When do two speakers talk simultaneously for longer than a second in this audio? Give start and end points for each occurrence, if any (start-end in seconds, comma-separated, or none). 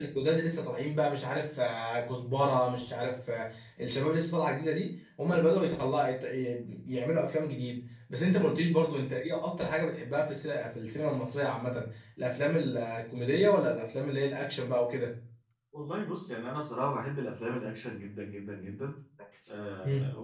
none